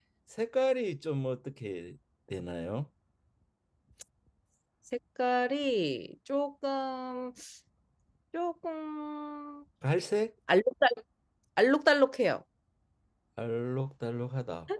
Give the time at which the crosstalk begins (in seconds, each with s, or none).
none